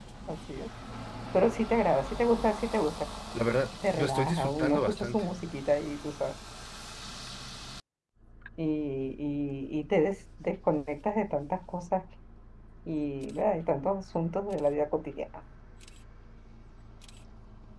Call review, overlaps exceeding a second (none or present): present